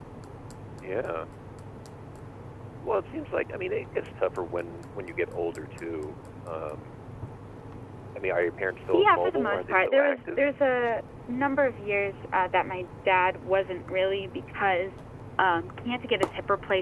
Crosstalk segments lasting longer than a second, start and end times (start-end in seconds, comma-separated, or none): 8.9-10.4